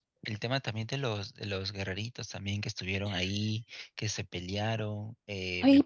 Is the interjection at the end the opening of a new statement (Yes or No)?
Yes